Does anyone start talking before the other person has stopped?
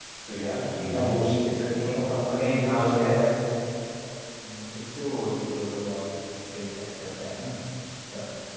Yes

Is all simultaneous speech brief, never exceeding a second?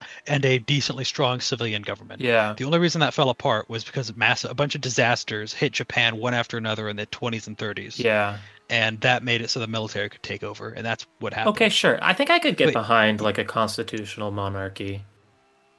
Yes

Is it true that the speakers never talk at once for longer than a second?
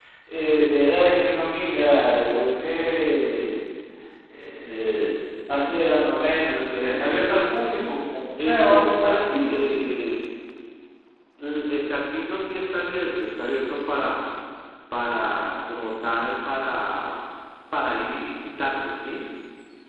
No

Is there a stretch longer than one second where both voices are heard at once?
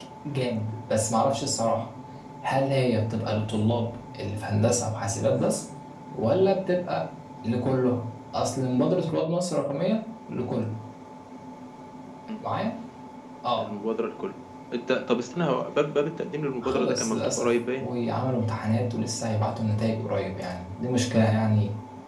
Yes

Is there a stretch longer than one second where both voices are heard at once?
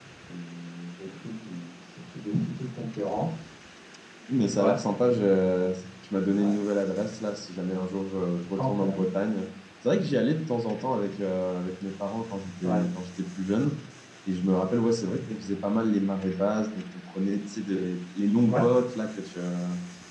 No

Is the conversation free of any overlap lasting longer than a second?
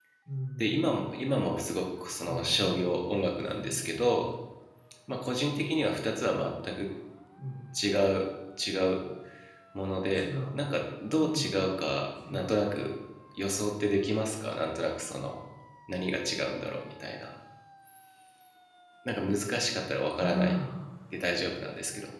No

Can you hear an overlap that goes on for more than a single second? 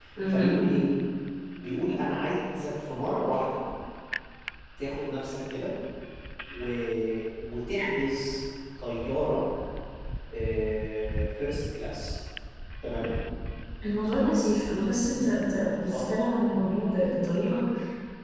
No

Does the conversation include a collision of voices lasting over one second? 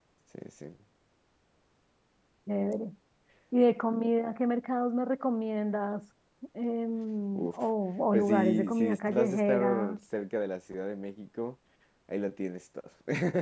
Yes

